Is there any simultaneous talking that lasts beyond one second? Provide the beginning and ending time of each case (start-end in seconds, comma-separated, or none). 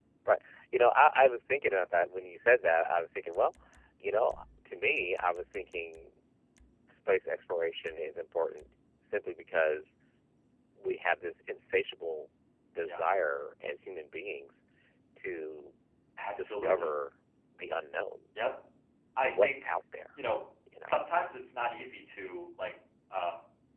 none